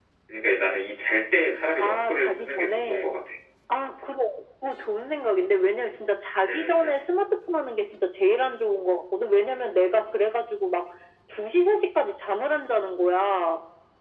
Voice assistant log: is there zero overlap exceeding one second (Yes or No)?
No